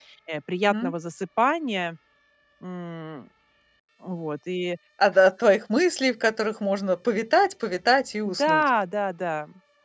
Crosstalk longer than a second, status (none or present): none